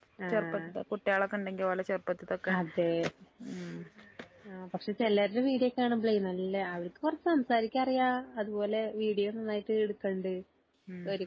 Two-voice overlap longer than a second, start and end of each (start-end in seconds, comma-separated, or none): none